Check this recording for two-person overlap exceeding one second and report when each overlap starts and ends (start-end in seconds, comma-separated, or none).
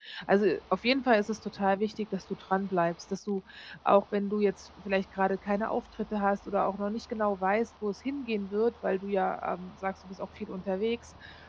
none